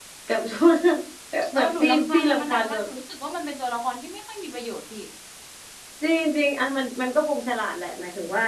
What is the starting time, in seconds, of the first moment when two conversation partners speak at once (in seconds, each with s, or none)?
1.6 s